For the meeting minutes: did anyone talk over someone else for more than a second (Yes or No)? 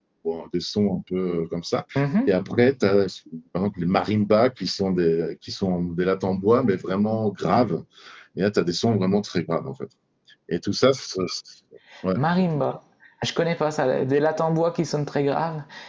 No